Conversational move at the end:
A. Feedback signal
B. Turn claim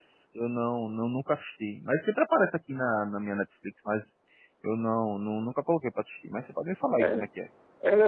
B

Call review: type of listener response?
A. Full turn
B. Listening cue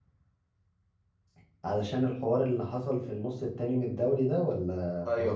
A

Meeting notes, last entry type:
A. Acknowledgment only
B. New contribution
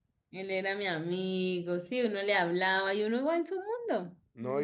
B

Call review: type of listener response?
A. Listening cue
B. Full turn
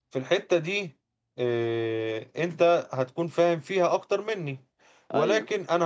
A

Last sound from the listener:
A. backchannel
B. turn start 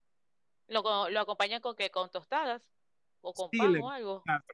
B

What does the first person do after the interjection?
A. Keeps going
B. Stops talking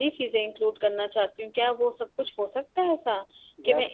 A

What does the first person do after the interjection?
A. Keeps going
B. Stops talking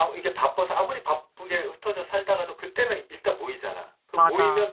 A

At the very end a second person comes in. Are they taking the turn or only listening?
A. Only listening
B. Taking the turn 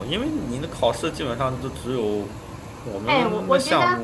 B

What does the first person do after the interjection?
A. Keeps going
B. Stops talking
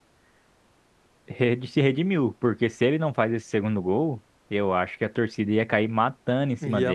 B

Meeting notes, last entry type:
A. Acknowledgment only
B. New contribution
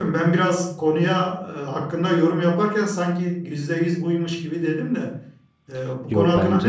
A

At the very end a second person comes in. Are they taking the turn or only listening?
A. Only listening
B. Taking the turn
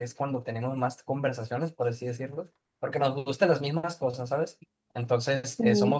A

